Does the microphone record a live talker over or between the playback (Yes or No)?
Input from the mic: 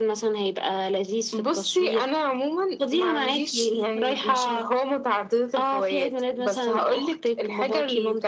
No